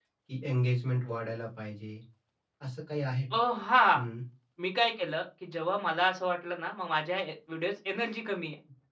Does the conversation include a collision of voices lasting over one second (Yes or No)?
No